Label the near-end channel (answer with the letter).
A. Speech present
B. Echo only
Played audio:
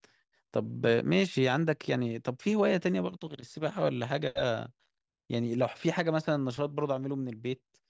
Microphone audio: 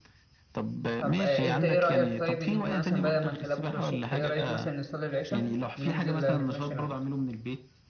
A